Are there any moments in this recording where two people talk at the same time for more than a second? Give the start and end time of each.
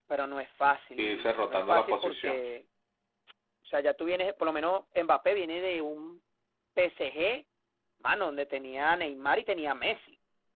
1.0-2.4

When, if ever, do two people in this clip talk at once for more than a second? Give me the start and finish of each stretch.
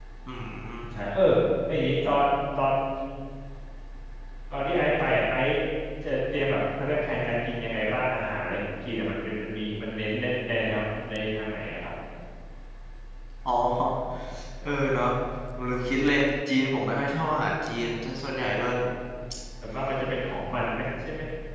none

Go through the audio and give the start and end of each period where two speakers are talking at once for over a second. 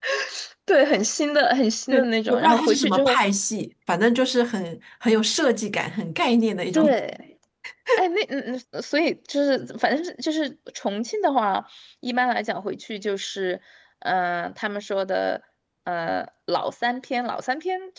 1.9-3.2

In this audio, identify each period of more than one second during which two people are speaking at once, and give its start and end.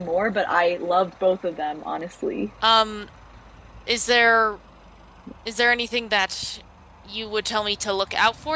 none

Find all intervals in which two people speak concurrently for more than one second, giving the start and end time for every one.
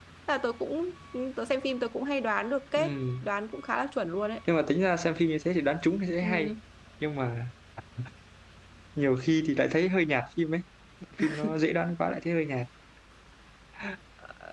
none

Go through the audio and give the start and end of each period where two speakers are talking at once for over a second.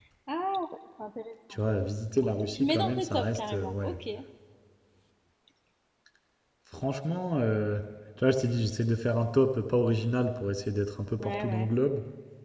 2.5-4.0

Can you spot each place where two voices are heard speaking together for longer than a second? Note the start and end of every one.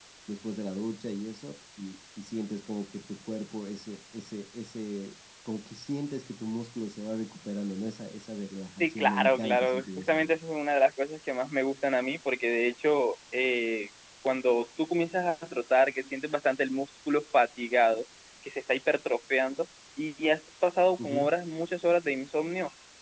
8.8-10.3

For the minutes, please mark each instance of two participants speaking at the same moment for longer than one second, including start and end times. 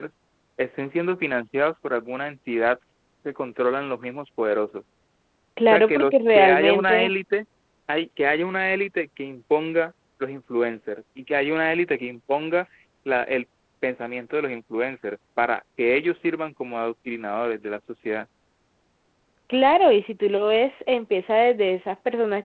5.7-7.1

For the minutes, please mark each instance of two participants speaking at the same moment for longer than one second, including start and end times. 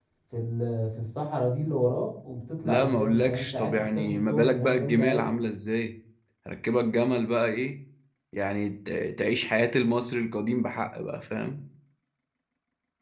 2.6-5.3

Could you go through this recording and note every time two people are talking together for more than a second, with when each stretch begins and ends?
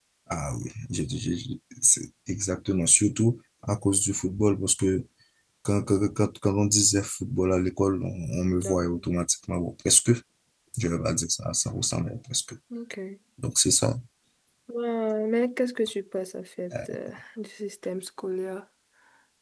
none

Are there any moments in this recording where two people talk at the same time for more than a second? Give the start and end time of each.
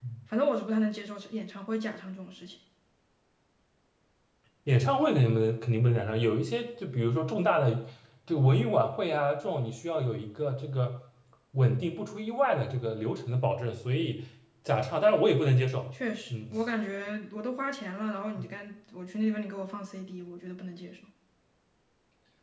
none

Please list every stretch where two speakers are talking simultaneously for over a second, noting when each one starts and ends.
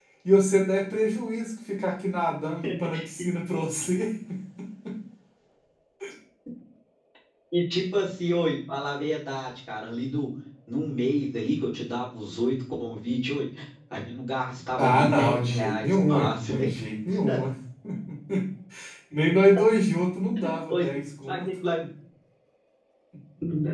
14.8-16.6

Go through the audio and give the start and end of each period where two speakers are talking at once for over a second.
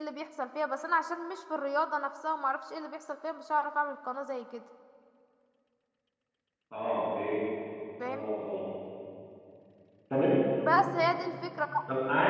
none

